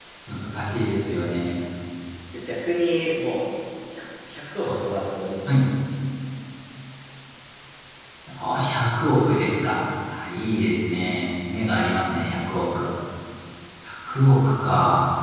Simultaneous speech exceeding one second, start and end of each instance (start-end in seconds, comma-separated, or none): none